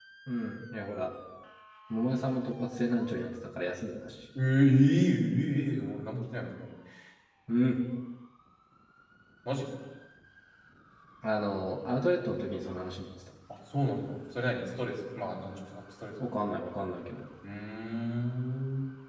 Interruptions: none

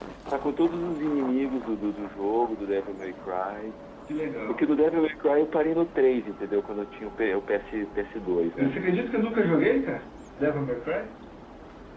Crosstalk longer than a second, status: none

